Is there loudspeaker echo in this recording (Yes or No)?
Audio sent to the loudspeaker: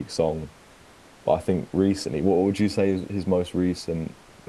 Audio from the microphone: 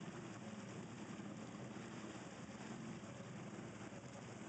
No